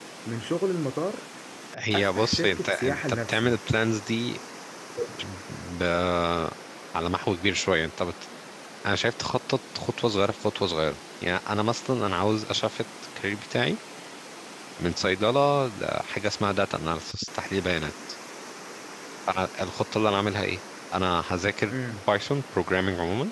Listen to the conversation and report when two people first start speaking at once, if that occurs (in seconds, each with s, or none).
1.9 s